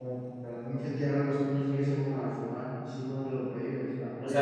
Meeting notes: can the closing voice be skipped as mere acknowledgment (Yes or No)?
No